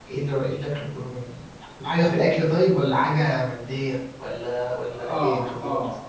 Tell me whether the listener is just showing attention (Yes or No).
No